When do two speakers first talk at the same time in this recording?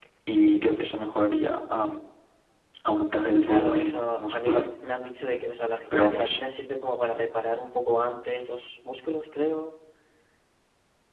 3 s

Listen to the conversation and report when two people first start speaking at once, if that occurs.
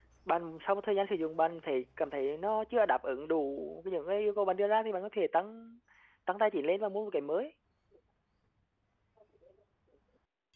none

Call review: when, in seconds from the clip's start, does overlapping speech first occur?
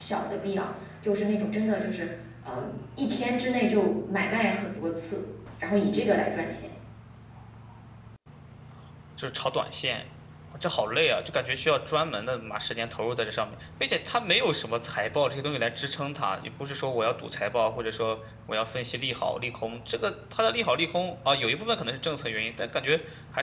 none

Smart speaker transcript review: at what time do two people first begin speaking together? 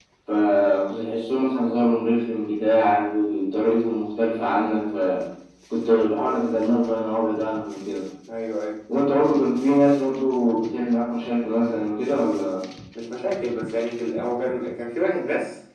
none

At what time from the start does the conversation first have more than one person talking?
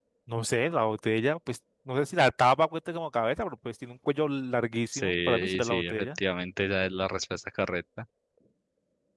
5 s

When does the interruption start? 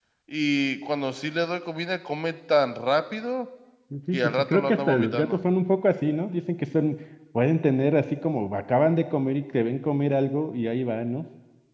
4 s

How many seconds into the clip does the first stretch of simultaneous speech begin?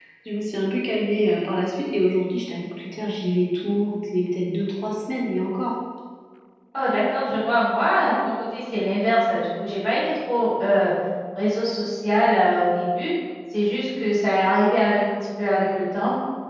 none

